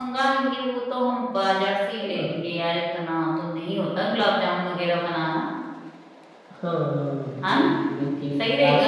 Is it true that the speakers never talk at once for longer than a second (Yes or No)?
Yes